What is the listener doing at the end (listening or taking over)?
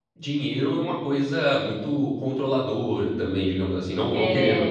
listening